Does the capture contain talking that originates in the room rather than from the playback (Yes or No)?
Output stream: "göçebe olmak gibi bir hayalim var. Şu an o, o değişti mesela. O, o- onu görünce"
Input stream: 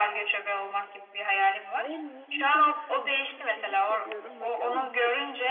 Yes